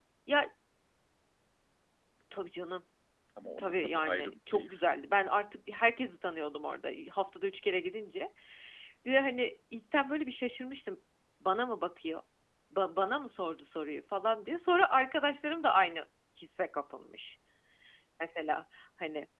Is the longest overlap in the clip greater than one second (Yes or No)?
Yes